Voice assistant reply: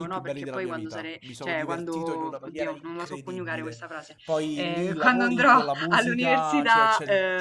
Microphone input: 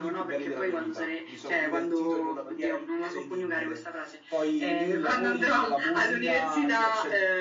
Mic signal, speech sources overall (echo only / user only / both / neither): echo only